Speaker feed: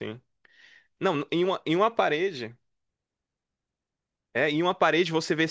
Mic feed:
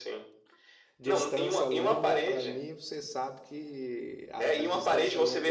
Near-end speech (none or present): present